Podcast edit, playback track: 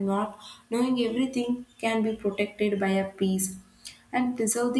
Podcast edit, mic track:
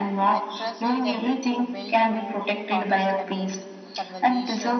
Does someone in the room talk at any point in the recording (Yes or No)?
Yes